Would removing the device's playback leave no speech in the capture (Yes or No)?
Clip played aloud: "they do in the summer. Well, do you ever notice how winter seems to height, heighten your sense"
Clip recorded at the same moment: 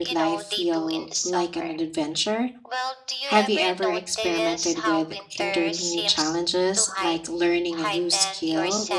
No